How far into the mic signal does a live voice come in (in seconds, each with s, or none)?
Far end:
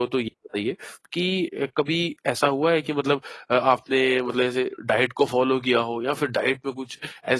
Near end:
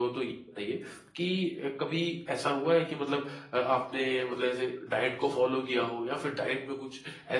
none